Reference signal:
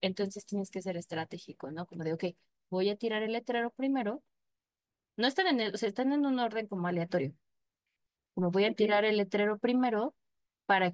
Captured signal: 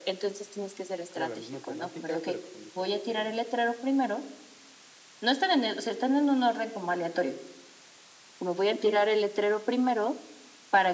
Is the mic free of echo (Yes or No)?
No